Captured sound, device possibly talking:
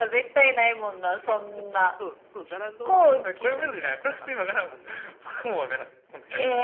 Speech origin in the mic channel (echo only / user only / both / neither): both